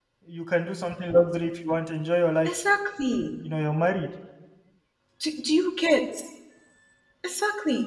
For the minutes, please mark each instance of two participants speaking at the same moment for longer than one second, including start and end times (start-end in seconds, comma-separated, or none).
none